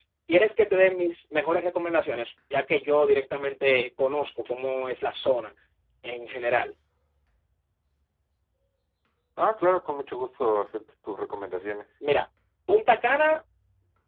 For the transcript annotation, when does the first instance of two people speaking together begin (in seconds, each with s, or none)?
none